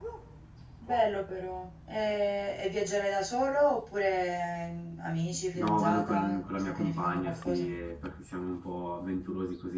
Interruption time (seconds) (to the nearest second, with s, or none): 6 s